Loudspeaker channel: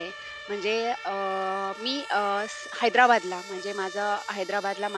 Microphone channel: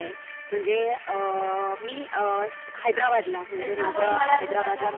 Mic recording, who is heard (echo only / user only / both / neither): both